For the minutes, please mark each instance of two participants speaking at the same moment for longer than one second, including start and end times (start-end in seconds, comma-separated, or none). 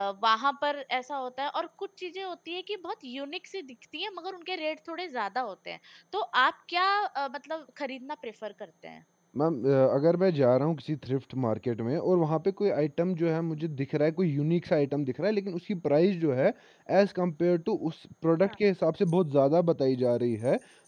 none